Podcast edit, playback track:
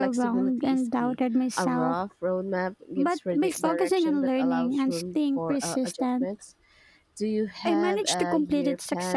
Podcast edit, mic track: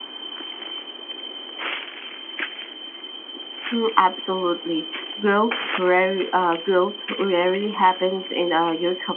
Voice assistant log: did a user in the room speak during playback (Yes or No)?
Yes